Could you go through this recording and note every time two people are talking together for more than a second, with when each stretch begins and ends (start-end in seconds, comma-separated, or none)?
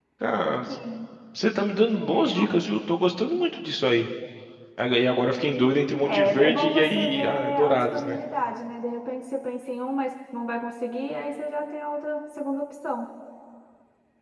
6.0-8.2